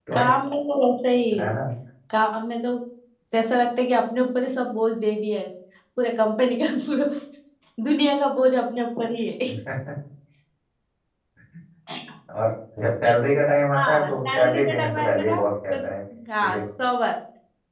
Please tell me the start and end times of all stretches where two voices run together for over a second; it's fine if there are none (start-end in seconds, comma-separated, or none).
13.7-15.4